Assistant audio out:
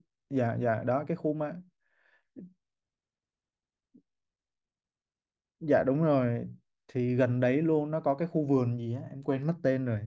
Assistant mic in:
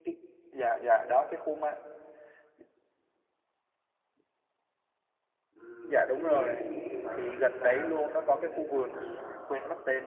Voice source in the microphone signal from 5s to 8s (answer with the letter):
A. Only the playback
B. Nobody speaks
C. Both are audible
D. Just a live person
C